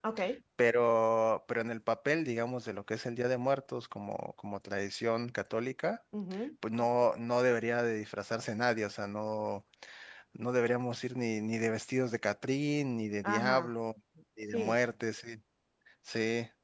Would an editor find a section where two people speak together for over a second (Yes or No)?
No